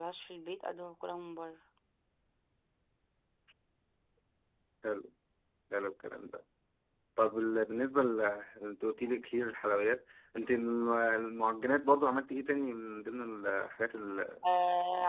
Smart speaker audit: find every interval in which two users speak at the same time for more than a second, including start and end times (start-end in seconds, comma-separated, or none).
none